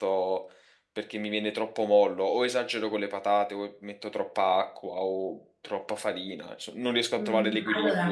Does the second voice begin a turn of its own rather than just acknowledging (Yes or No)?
Yes